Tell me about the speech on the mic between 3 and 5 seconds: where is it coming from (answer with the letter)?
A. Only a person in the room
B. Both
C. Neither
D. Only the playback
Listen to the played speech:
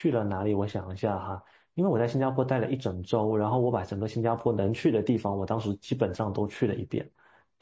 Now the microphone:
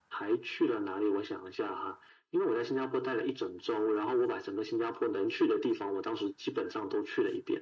D